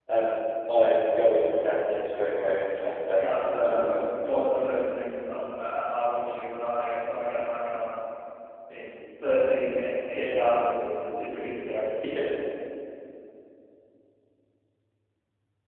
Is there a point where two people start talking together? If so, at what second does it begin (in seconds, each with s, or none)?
3.2 s